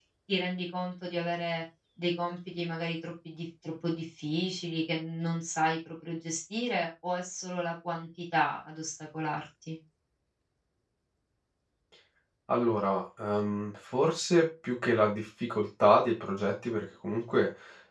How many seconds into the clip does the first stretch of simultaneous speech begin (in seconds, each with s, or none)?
none